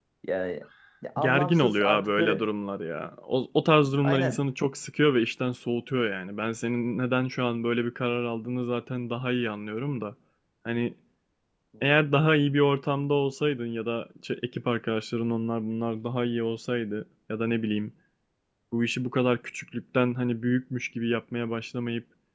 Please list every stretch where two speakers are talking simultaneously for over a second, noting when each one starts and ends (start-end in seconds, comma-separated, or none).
1.2-2.5